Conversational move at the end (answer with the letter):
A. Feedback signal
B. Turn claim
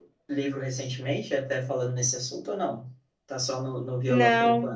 B